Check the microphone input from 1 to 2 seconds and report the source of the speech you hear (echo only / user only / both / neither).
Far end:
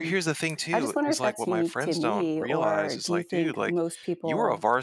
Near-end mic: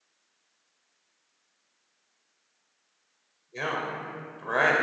neither